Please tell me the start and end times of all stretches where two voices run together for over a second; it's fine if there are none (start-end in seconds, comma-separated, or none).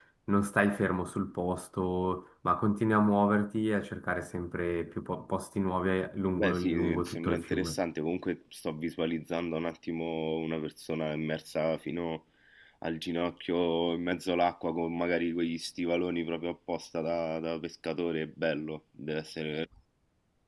6.3-7.8